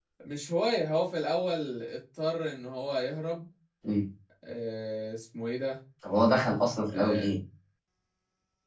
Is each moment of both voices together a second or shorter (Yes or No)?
Yes